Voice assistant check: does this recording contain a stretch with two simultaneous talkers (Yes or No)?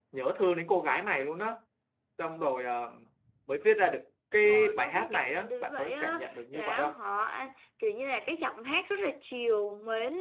Yes